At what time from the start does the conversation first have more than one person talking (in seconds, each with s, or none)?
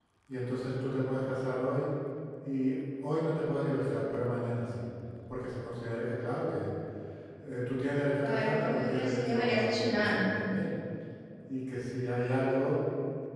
8.2 s